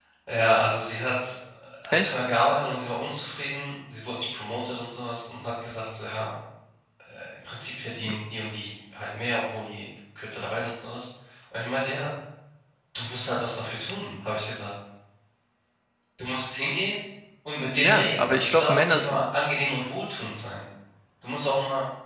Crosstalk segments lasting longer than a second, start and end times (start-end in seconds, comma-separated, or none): 17.7-19.2